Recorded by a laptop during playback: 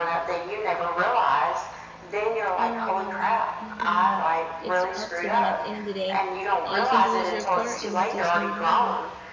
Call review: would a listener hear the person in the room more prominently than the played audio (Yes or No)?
No